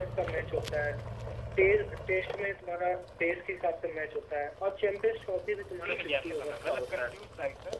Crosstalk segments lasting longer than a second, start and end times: 5.8-7.1

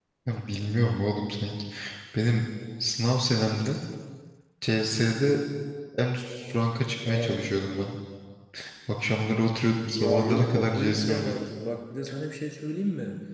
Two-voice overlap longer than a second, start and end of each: 9.9-11.5

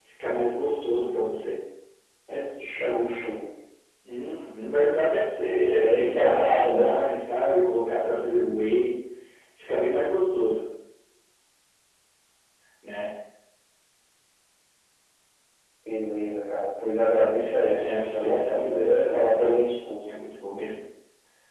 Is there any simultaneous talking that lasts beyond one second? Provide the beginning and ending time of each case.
5.8-7.0, 17.4-19.6

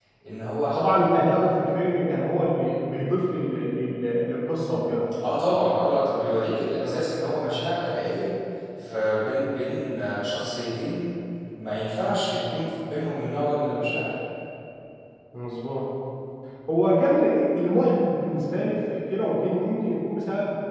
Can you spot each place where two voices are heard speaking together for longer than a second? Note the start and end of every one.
none

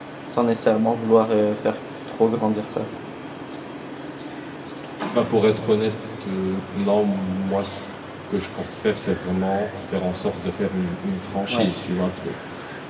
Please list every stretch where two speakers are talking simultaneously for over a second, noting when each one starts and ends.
none

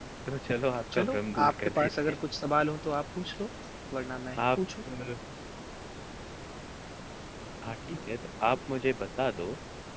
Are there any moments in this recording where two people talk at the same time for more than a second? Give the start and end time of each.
0.9-2.2

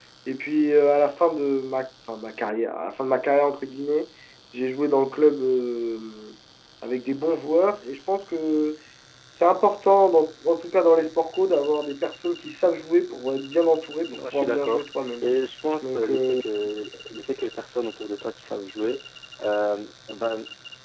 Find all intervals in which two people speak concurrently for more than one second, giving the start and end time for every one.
14.1-15.3

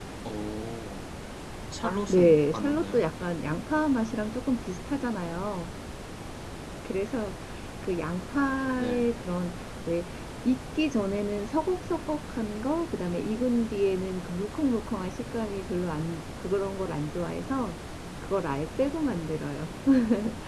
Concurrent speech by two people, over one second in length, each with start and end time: 1.8-3.0

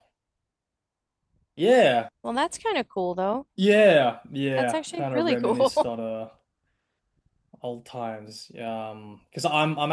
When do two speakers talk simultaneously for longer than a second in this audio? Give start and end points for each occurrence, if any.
4.6-5.9

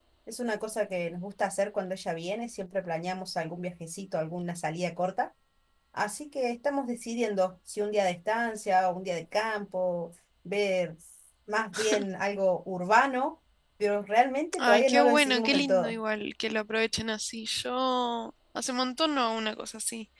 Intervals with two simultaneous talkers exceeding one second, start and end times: 14.6-16.0

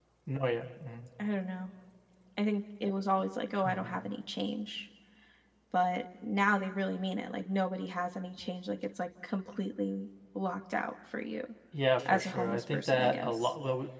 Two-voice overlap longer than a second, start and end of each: 12.1-13.5

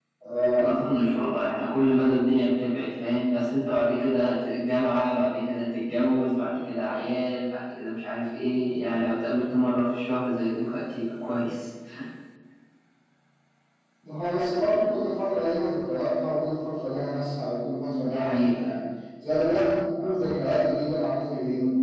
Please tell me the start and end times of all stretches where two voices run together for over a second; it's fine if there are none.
none

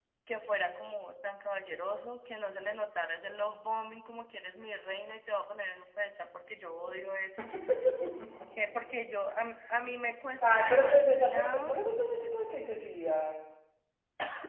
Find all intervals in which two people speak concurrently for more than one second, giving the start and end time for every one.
10.5-11.8

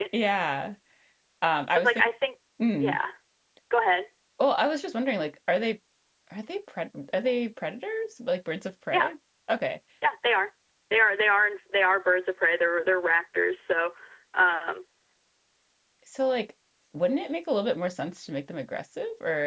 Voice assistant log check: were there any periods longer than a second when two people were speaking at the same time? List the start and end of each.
none

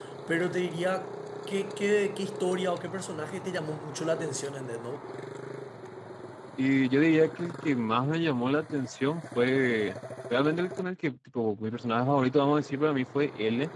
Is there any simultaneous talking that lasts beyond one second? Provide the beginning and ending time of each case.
none

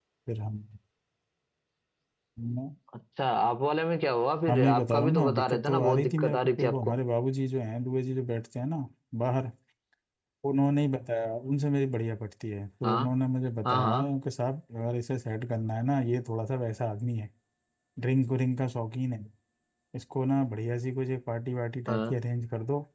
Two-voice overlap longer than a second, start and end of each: 4.5-7.0

